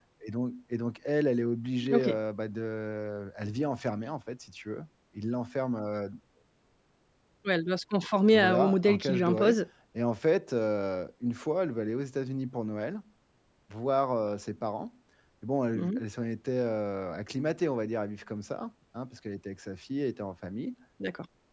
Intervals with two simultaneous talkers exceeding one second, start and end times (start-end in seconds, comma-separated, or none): 8.3-9.6